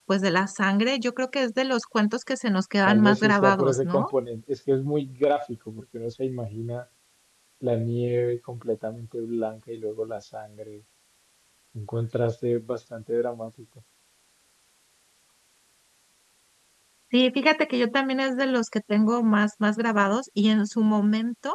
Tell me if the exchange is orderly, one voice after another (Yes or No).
No